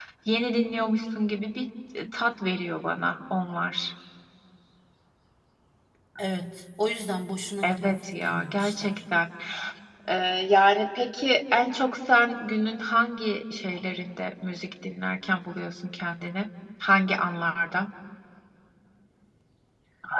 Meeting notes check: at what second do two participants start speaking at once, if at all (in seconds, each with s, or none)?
7.6 s